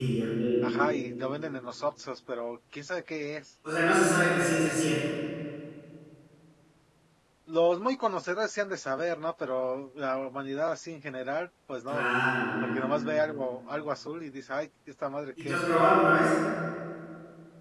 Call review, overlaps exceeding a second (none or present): none